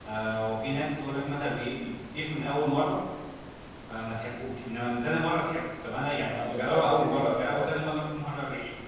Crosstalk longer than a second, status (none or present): present